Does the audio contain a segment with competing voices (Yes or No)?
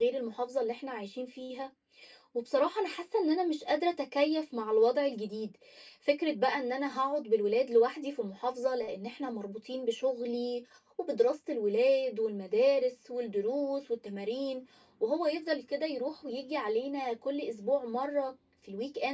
No